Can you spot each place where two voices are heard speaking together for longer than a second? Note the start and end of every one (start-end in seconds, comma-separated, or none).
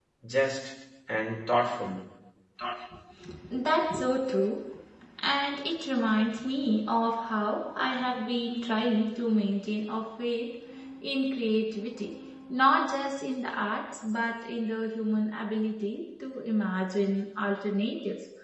none